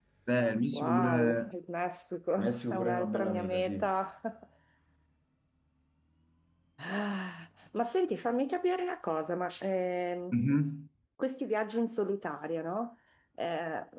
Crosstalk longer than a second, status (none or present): present